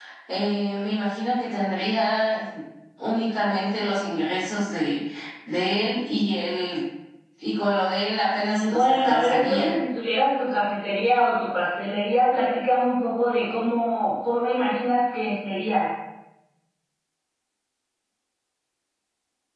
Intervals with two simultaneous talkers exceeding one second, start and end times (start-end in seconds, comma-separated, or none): 8.3-9.7